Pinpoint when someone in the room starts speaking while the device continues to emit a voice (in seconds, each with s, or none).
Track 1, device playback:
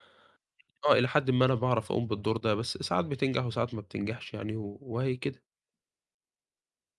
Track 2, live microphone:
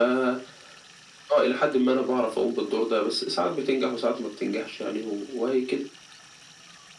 none